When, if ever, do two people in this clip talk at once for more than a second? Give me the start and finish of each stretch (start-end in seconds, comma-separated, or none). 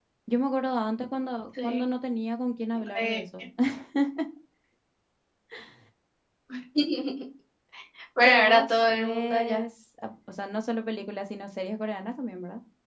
8.2-9.6